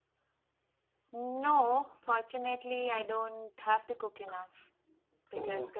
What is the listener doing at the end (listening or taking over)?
listening